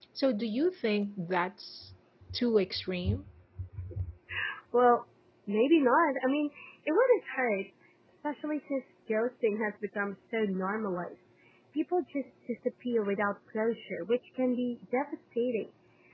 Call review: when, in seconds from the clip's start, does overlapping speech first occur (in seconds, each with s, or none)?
none